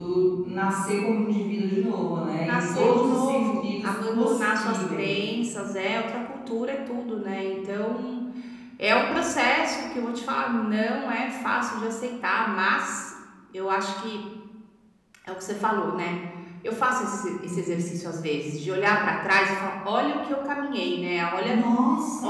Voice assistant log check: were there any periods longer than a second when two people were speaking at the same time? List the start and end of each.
2.5-5.1

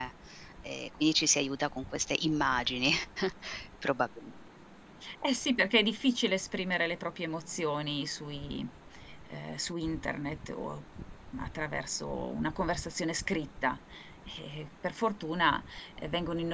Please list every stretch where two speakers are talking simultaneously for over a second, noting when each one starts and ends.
none

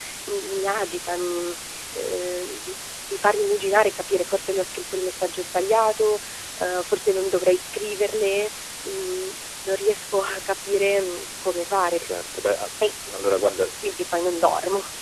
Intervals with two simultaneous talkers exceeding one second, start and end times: none

